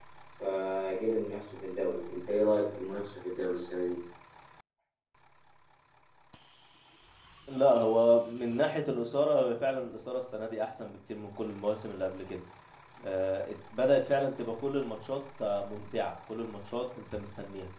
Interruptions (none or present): none